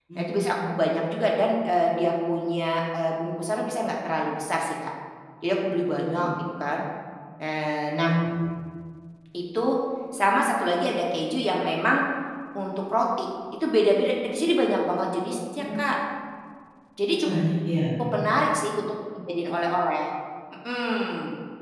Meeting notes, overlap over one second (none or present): none